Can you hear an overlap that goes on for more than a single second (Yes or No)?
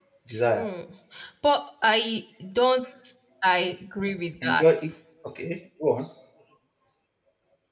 No